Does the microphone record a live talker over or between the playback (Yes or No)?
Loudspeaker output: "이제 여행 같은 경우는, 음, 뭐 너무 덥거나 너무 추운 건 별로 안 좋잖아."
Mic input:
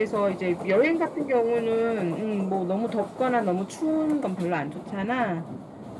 No